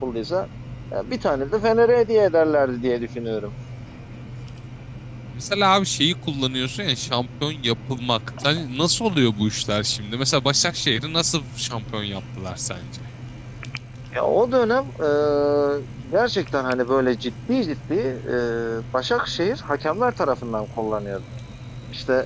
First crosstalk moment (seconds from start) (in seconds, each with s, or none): none